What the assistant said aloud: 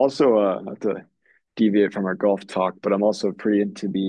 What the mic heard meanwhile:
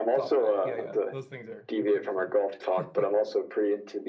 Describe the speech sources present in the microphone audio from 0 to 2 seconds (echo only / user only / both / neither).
both